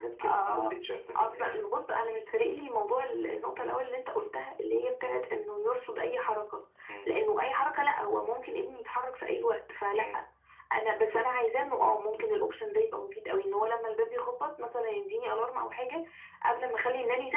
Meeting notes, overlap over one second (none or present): none